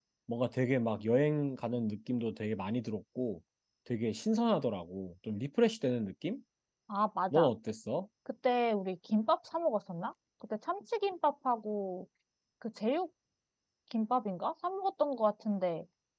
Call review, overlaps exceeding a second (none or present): none